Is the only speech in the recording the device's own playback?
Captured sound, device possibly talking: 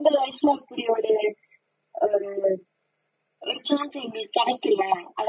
Yes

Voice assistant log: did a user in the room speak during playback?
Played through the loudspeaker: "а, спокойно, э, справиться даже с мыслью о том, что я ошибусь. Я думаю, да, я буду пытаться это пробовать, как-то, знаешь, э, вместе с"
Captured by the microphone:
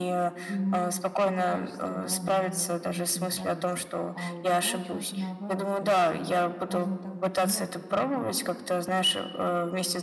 Yes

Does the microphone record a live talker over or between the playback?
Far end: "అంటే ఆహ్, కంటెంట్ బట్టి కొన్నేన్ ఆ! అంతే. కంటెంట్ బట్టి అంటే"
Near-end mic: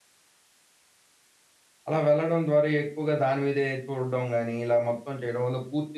Yes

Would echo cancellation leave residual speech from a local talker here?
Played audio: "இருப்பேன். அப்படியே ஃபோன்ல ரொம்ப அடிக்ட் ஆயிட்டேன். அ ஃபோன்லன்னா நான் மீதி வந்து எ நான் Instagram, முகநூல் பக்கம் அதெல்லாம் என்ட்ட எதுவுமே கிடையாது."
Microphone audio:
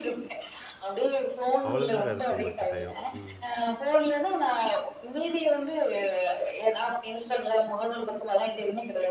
Yes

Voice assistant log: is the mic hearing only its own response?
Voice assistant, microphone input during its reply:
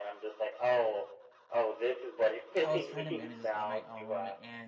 No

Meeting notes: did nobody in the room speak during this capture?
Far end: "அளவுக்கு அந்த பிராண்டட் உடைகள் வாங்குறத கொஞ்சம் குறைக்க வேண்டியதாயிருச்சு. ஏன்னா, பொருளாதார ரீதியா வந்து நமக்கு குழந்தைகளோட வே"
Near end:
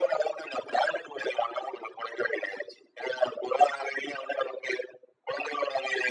Yes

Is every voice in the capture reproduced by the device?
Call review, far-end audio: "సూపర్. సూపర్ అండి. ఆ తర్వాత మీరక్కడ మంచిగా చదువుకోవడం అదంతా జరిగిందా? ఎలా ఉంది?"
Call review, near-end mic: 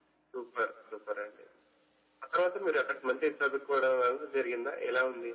Yes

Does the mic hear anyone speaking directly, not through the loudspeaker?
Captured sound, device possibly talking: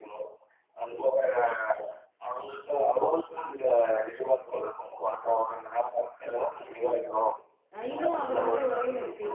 Yes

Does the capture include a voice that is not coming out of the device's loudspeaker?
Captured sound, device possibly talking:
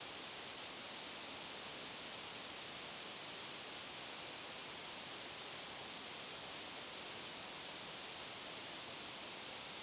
No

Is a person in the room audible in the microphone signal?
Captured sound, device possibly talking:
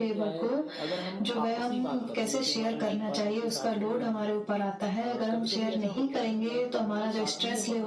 Yes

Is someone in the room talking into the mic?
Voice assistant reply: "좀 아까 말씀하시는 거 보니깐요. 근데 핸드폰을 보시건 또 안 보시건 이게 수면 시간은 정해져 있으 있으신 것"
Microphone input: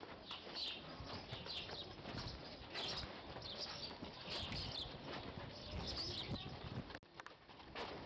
No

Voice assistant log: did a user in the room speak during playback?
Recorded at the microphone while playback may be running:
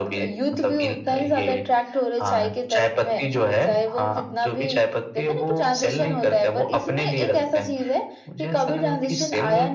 No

